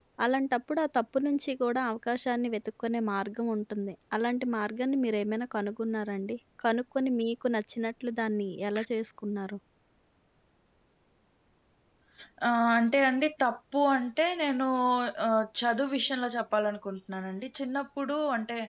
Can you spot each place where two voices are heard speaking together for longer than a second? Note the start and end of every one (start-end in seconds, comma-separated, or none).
none